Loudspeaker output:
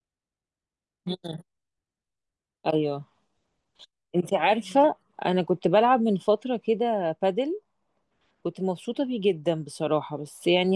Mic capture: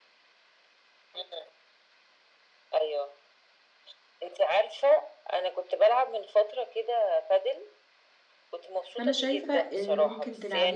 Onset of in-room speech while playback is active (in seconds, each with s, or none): 8.9 s